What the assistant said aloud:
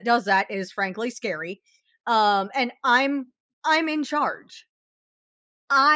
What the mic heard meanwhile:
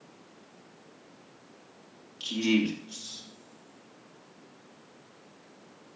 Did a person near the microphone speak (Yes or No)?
Yes